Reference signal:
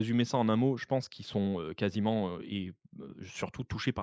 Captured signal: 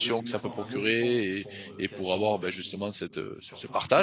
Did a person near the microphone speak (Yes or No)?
Yes